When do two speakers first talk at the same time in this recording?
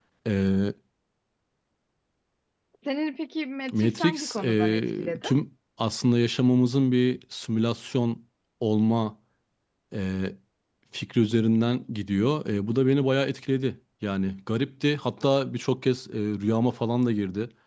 3.7 s

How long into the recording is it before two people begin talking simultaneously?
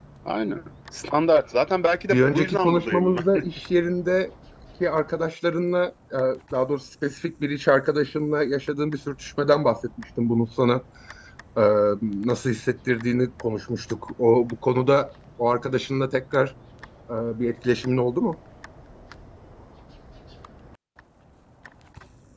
2.1 s

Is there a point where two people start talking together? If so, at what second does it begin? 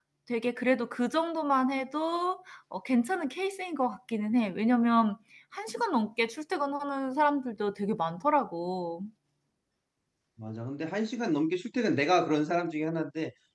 none

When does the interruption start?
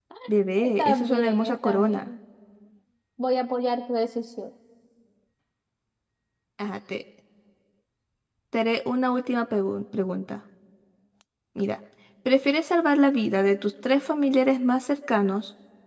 0.6 s

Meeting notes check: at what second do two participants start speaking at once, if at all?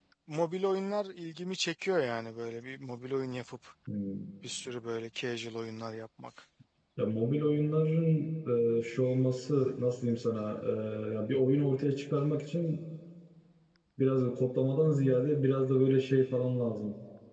none

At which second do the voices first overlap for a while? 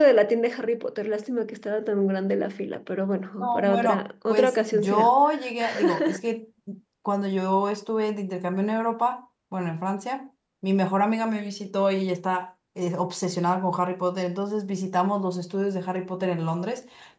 3.4 s

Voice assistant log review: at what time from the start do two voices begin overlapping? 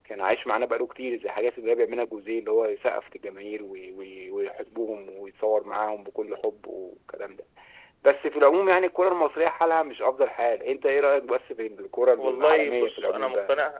12.2 s

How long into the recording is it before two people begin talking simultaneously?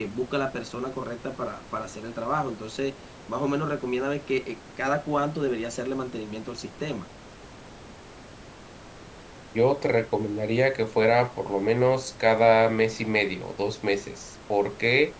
none

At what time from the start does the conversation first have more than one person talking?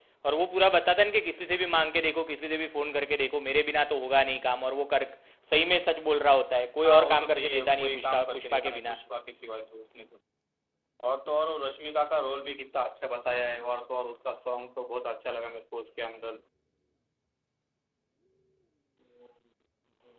6.8 s

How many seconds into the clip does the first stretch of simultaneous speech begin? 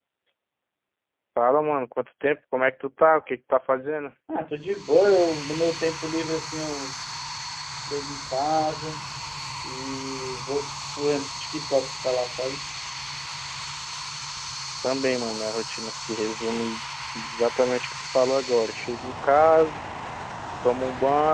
none

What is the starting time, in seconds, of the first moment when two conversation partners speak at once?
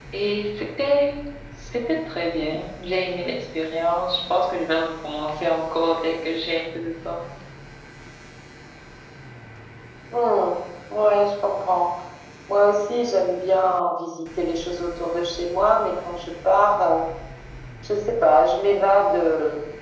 none

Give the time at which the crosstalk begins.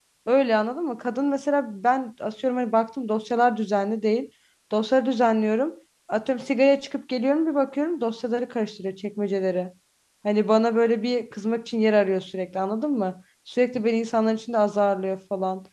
none

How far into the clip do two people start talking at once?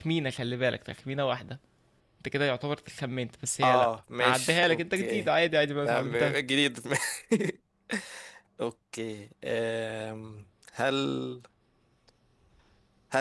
3.6 s

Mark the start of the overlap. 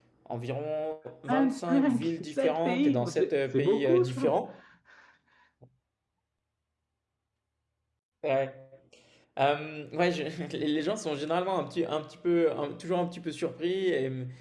1.5 s

